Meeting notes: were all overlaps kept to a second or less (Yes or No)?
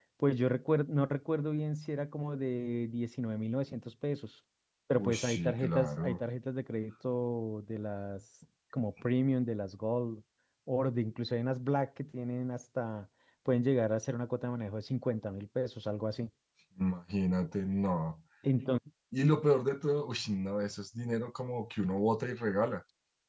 No